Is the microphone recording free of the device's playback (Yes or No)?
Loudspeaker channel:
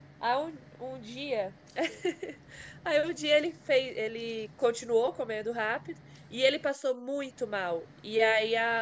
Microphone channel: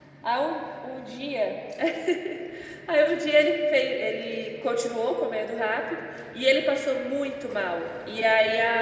No